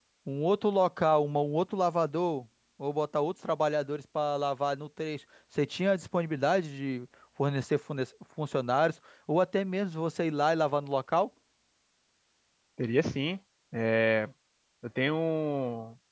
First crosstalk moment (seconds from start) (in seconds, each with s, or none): none